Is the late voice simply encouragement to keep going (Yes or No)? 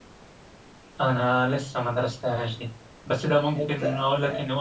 Yes